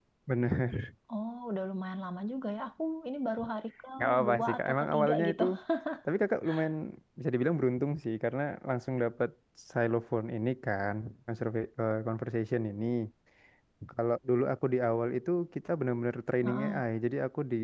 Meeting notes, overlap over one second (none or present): present